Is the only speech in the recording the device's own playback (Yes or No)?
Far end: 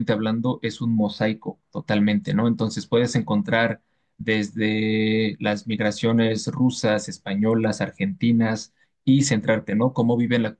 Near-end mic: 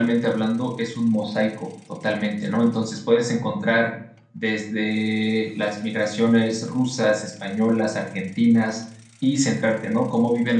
Yes